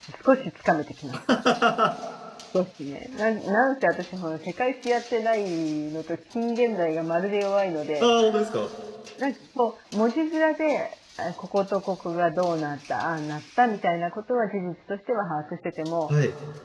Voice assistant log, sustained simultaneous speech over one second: none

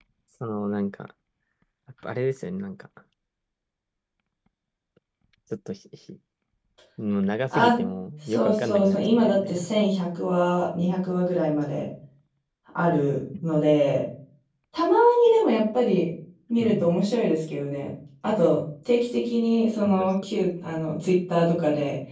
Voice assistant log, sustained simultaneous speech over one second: present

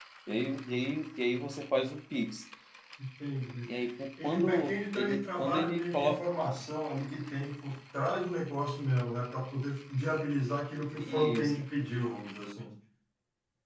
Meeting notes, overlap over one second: present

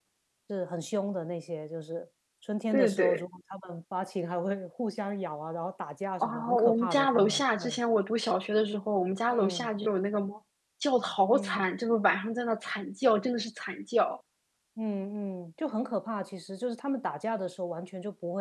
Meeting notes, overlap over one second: present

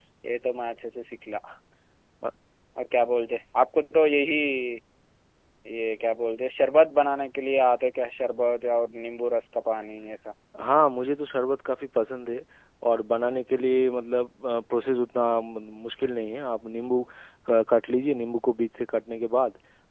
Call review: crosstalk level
none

